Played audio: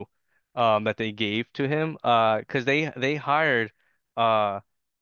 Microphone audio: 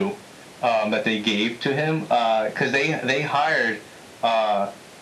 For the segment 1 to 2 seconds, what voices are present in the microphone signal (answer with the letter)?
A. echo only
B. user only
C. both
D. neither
A